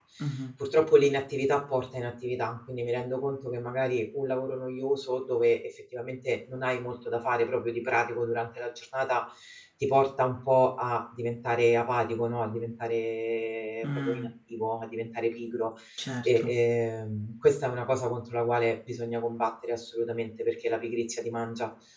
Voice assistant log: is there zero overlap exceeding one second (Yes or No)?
Yes